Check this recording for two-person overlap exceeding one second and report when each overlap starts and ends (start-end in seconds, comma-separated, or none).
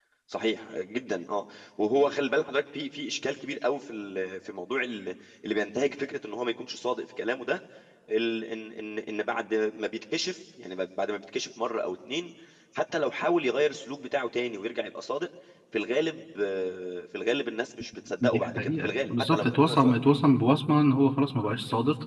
18.2-20.0